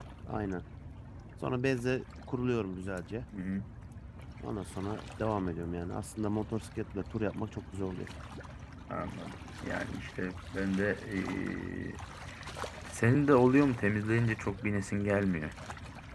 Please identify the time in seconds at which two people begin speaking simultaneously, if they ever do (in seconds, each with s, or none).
none